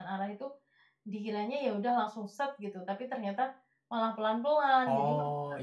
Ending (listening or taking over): taking over